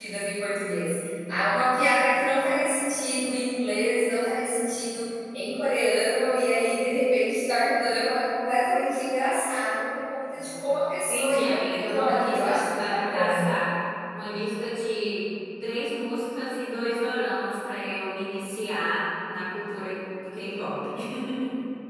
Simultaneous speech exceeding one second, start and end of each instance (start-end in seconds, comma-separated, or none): 11.1-13.5